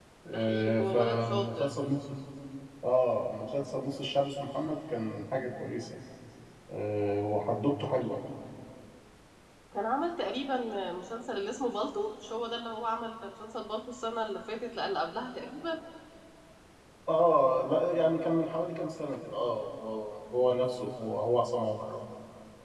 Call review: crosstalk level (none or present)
present